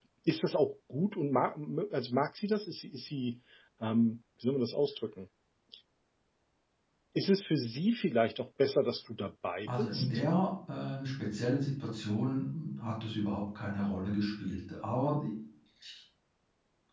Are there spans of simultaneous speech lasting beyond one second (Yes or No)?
No